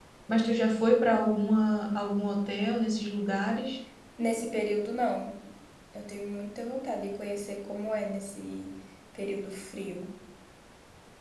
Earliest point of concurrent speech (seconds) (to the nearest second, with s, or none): none